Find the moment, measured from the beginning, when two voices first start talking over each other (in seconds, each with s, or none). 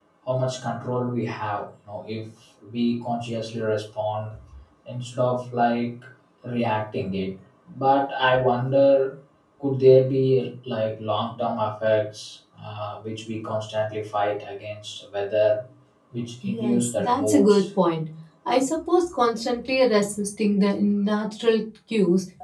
16.4 s